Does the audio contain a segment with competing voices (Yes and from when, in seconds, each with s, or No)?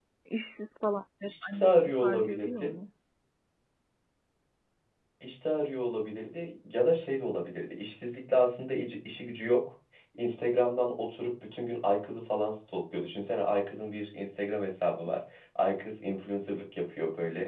Yes, from 1.3 s